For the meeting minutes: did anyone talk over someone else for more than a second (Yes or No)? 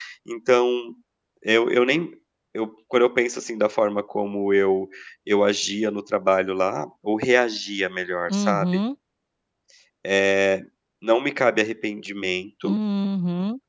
No